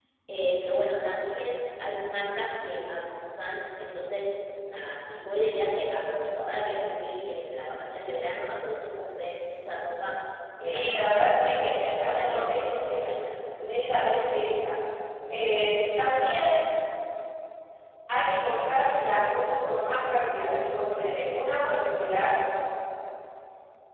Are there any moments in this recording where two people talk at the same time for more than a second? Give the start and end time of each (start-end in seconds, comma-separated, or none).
10.6-13.0